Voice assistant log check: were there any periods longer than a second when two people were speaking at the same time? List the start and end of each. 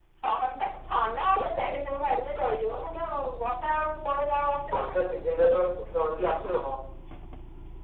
none

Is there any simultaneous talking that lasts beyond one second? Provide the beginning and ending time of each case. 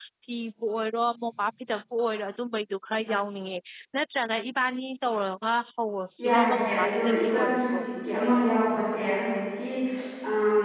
6.2-7.8

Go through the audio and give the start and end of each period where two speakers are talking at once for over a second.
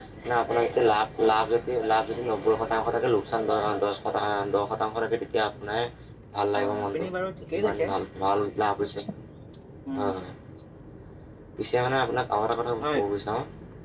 none

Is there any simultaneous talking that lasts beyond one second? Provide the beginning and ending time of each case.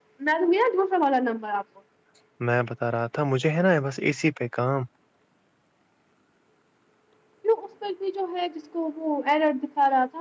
none

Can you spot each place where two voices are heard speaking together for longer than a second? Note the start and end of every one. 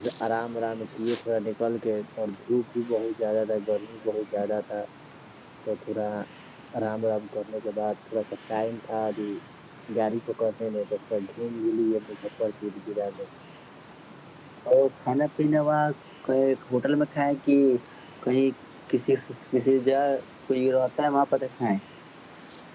none

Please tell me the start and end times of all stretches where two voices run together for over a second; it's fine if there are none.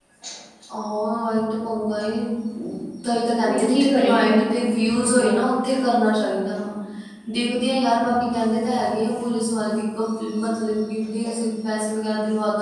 3.5-5.3

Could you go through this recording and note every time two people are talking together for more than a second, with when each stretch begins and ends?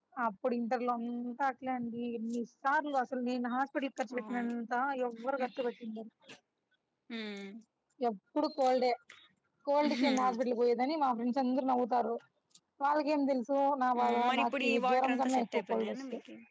14.0-16.0

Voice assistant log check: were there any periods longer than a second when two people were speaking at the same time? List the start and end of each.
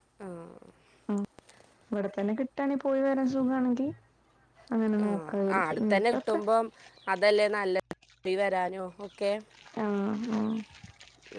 5.1-6.4

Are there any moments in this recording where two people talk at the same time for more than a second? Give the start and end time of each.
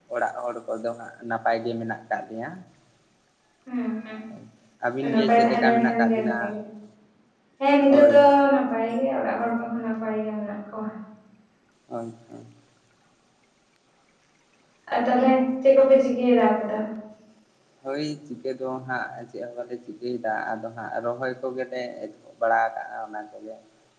5.0-6.3

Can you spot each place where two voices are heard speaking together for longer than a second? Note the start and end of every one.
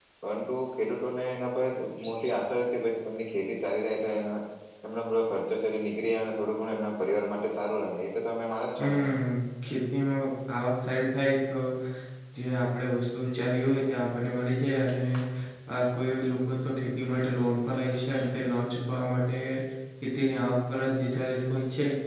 none

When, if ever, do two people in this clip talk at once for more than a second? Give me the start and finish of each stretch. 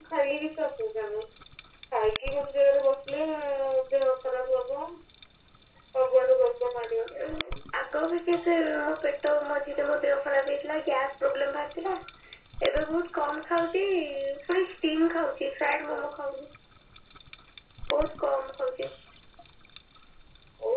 none

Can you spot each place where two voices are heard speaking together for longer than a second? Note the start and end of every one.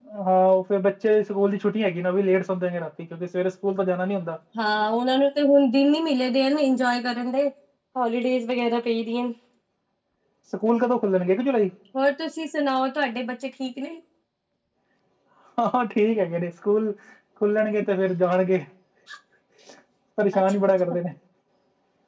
none

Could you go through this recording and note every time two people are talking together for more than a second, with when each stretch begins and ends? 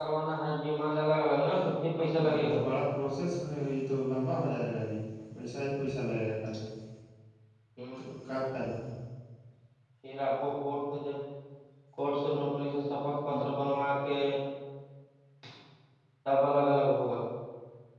none

